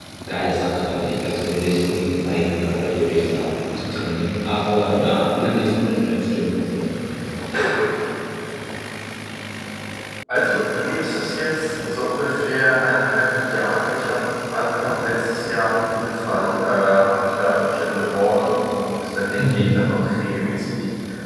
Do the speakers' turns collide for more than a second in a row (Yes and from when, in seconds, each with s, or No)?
No